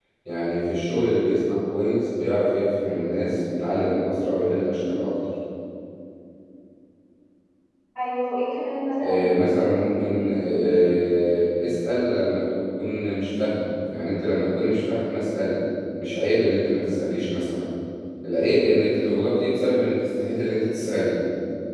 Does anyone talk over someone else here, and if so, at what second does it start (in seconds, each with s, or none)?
9.0 s